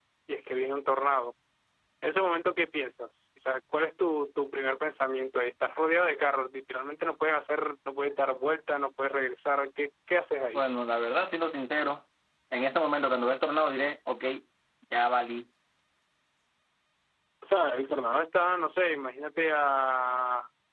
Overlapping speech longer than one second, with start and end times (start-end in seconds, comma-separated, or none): none